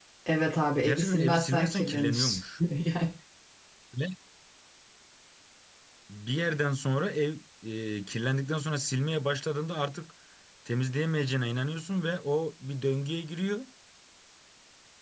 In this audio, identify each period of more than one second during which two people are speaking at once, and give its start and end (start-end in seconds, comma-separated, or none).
0.8-2.4